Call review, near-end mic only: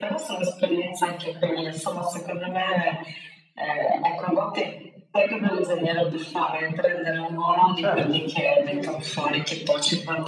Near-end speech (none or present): present